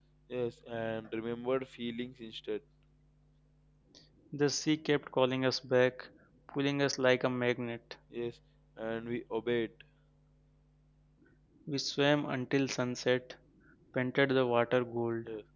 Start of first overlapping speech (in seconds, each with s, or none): none